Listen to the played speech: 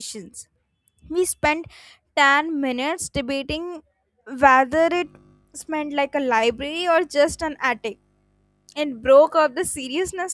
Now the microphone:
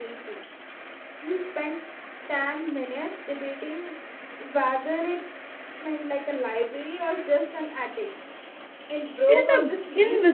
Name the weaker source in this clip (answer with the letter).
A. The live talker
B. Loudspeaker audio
B